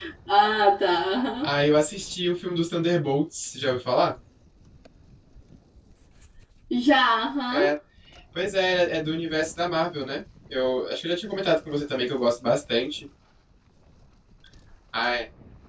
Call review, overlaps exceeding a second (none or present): none